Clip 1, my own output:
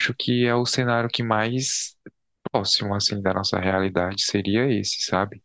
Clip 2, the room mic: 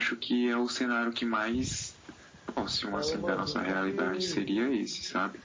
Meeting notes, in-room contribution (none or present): present